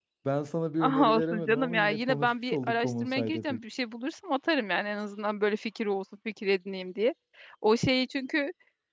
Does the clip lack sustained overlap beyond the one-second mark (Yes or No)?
No